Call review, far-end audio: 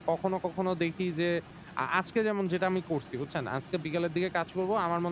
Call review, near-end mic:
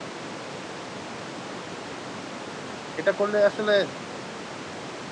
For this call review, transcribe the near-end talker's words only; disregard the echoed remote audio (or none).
এটা করলে আসলে